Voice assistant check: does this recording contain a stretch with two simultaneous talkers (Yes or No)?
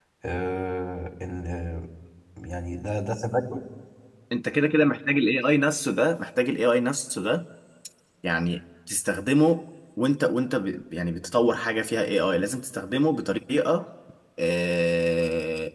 No